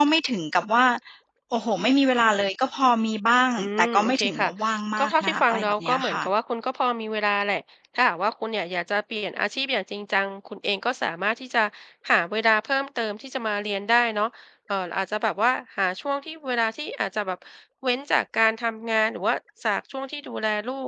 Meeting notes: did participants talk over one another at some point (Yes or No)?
Yes